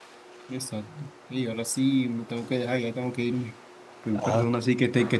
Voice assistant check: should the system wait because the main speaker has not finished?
Yes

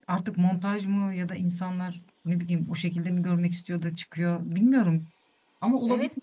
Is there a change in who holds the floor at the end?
Yes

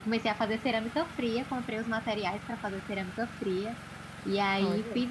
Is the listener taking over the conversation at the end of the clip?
No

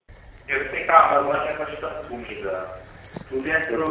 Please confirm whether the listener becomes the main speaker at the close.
No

